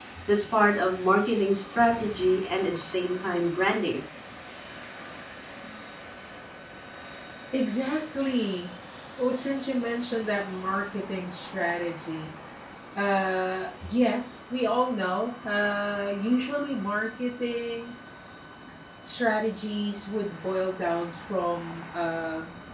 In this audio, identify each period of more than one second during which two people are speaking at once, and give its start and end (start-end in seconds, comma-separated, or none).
none